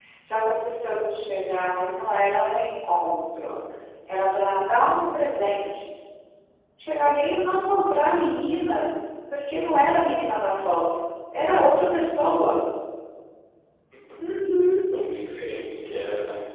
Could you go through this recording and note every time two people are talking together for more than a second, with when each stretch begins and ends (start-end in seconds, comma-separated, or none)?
none